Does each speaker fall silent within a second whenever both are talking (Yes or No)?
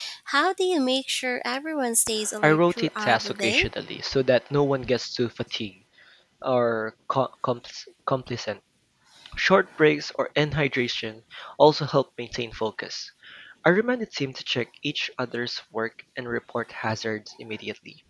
No